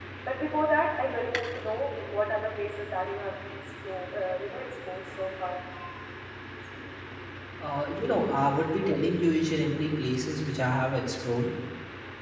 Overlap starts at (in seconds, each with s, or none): none